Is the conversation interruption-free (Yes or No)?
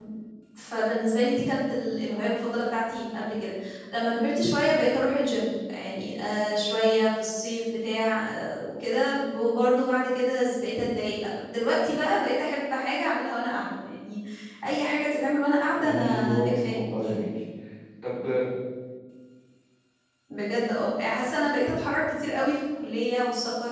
No